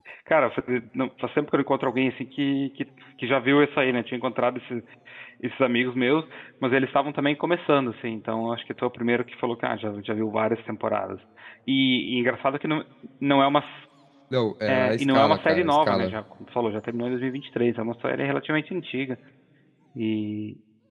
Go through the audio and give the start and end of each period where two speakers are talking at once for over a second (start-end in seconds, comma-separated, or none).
14.7-16.2